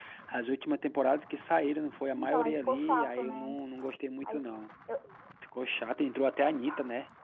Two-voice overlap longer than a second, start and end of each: 2.2-3.6

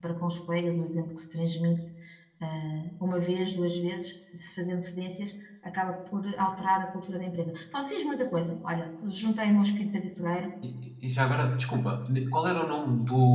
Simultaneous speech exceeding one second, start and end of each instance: none

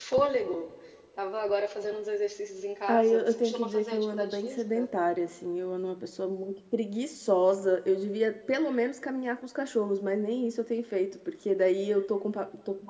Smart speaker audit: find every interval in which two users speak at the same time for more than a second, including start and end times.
2.9-4.9

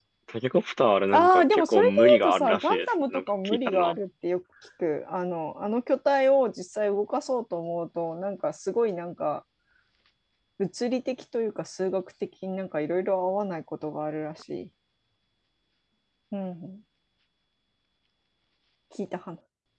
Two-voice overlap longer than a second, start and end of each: 1.1-3.9

